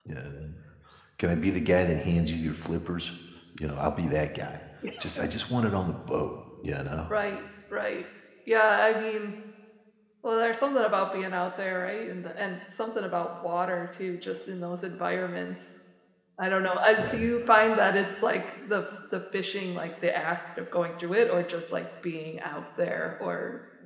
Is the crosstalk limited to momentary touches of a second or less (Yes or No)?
Yes